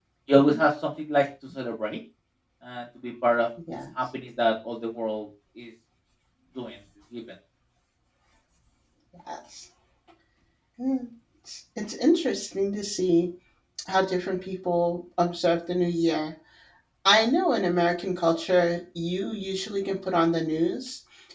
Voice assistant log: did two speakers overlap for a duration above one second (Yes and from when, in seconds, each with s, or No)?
No